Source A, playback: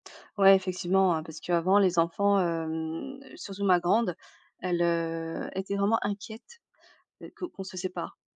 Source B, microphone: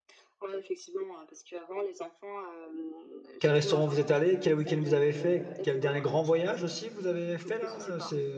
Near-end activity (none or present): present